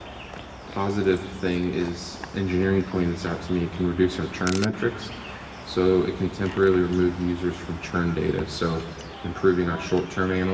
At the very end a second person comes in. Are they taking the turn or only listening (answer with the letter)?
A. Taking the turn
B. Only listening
B